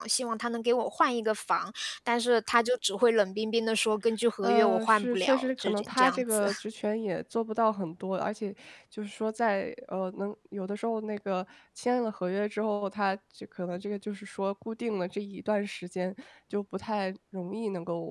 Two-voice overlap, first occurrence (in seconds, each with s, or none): 4.4 s